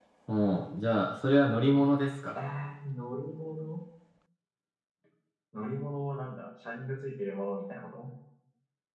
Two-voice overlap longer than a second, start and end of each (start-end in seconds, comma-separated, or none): none